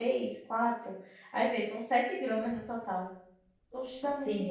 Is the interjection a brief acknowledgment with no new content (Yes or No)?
No